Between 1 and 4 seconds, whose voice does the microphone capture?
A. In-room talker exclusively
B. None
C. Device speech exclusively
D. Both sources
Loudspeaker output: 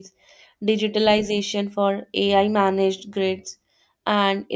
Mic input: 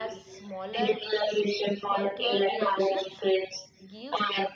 D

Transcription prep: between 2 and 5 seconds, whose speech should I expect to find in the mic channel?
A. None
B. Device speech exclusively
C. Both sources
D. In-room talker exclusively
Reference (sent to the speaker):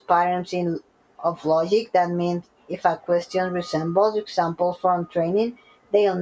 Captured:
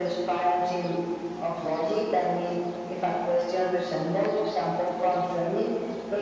B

